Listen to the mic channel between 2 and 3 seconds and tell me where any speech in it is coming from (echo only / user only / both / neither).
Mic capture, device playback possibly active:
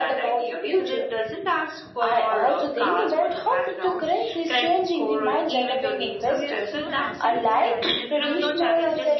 echo only